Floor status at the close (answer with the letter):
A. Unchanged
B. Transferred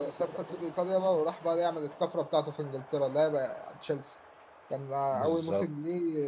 A